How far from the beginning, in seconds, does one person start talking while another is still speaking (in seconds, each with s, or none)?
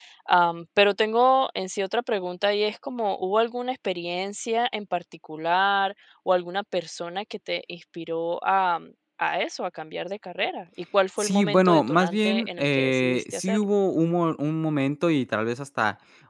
11.2 s